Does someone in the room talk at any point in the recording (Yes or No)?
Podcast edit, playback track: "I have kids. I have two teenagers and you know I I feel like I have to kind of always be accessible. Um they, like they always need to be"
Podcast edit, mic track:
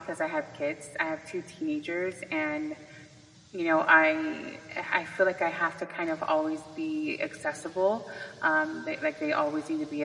No